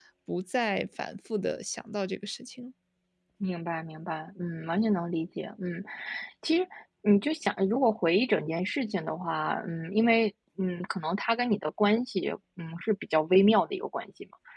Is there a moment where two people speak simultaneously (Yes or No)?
No